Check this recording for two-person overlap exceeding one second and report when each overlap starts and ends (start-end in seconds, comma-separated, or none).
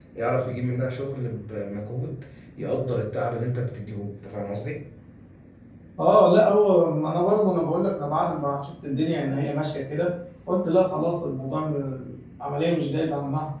none